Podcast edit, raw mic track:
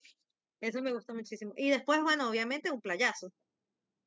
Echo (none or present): none